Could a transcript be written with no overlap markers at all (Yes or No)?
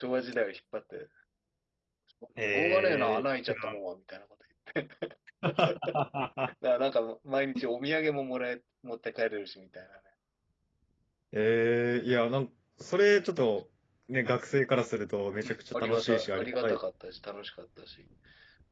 No